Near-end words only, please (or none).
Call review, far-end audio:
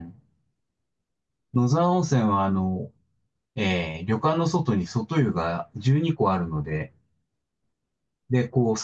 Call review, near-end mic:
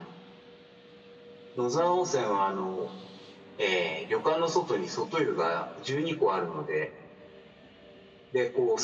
none